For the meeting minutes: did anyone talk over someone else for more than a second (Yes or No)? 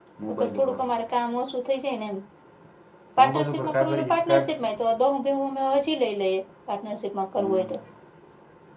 Yes